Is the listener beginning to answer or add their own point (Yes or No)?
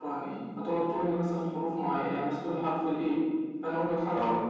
No